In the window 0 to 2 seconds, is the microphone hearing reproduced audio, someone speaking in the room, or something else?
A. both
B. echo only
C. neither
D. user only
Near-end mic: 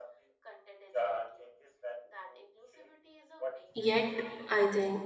B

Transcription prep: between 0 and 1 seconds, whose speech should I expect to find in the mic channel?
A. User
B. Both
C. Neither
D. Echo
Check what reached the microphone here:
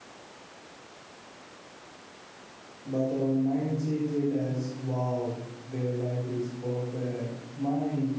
C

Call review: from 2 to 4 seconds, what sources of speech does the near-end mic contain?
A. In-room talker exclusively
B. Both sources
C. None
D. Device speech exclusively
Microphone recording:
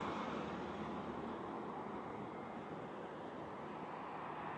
C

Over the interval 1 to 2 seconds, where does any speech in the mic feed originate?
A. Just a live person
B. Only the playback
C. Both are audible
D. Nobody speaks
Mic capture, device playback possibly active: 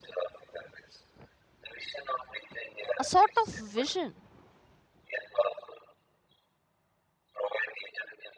B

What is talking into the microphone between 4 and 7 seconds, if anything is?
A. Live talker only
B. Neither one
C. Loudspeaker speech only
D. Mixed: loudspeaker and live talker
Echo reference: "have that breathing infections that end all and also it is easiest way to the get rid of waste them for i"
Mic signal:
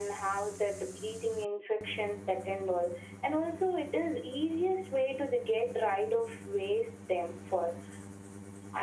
C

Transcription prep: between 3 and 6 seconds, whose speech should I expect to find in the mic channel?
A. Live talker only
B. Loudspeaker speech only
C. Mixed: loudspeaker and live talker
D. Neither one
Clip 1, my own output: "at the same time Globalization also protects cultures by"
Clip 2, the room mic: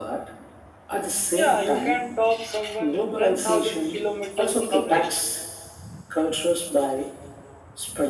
C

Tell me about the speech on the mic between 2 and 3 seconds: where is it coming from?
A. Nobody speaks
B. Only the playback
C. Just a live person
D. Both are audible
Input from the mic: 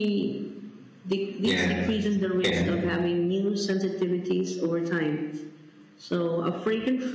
D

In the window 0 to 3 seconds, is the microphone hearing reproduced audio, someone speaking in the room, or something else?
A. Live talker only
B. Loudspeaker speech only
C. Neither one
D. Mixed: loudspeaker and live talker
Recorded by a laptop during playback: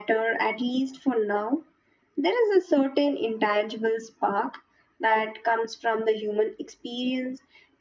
B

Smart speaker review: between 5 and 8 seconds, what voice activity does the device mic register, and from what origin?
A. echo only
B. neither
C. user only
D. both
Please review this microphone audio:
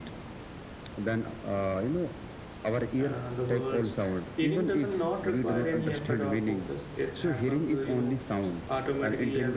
D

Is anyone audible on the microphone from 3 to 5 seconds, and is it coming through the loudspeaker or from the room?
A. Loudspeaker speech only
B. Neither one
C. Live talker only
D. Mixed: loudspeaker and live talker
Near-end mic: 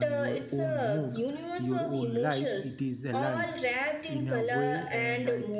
D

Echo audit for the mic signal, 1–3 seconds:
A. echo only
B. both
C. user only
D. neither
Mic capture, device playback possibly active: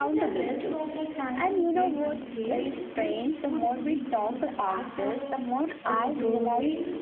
B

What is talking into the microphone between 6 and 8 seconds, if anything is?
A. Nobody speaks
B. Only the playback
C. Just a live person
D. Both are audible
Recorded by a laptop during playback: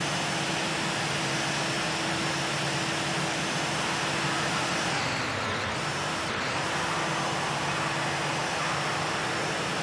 A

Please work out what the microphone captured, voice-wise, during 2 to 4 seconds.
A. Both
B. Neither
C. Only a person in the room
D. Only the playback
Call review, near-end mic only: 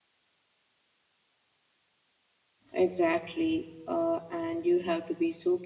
C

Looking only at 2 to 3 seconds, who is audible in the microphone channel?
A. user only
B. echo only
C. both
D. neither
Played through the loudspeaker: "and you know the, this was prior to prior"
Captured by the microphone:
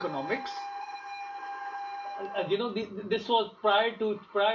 B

